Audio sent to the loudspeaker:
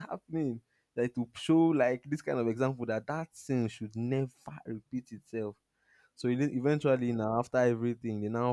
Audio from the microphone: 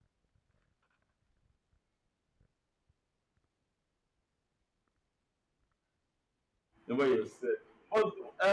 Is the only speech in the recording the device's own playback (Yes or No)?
No